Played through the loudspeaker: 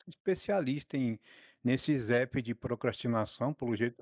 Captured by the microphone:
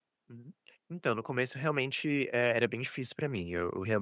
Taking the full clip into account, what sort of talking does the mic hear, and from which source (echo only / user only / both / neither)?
user only